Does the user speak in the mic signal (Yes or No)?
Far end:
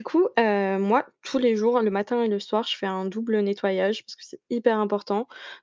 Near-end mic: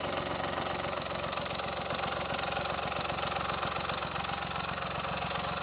No